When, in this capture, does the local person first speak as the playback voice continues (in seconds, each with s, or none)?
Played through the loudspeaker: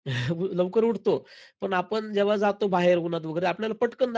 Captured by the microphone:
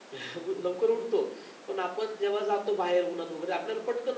none